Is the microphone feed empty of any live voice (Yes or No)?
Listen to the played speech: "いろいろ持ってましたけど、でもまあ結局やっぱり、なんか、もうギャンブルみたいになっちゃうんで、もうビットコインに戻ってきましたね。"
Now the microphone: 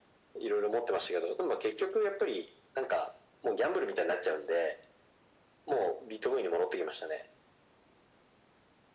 Yes